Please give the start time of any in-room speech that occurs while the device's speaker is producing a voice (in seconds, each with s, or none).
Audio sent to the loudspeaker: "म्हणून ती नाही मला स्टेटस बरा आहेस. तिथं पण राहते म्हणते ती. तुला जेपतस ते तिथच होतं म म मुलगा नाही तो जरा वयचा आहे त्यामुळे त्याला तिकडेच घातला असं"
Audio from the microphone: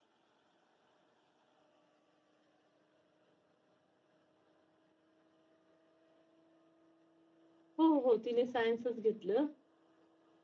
7.8 s